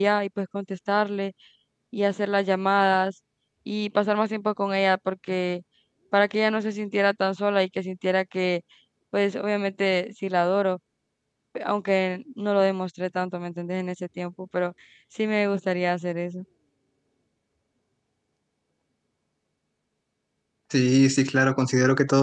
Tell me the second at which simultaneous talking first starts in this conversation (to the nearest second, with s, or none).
none